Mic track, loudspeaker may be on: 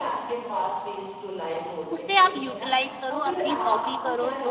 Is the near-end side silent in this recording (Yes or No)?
No